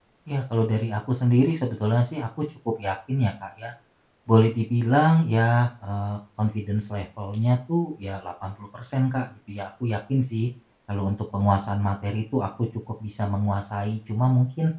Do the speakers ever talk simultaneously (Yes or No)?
No